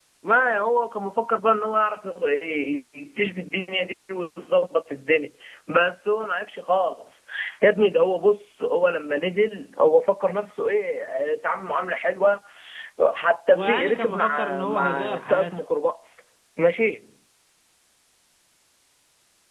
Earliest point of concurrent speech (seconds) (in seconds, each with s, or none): 13.6 s